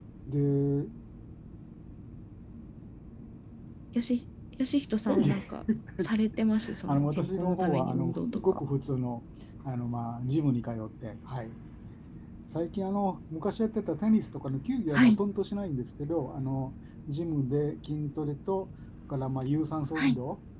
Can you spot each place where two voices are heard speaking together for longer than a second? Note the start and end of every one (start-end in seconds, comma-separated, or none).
6.9-8.6